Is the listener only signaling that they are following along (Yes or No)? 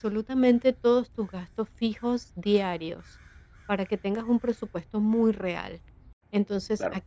Yes